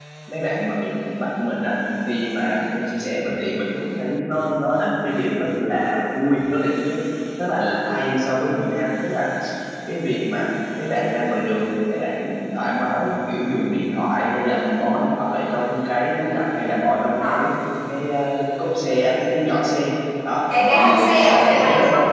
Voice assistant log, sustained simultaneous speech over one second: present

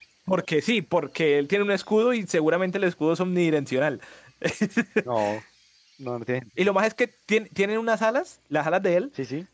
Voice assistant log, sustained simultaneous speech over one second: none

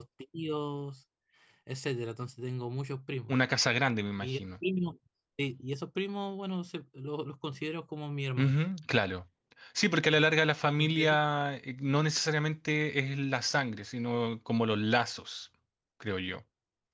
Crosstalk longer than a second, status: none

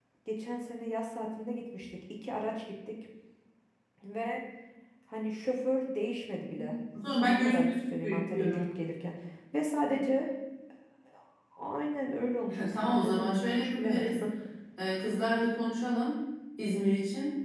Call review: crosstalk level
present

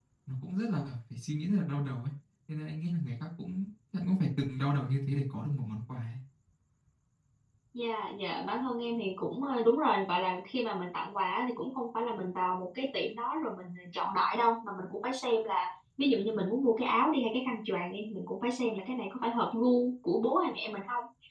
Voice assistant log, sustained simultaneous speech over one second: none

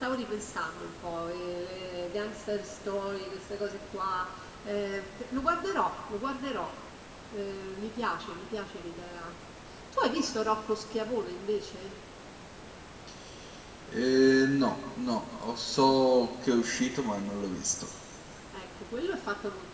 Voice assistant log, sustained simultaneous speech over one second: none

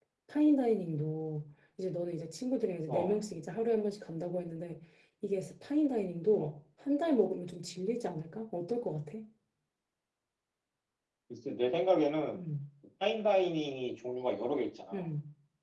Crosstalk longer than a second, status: none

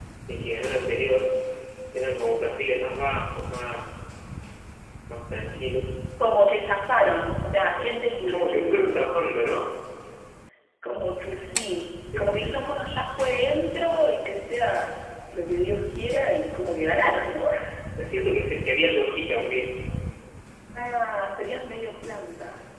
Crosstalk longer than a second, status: present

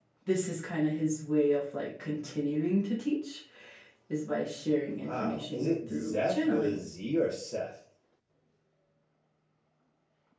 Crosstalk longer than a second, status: present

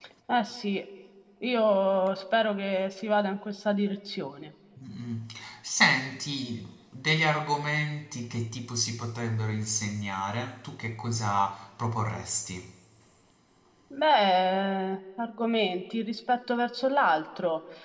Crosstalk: none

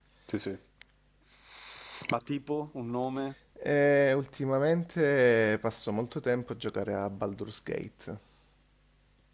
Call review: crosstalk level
none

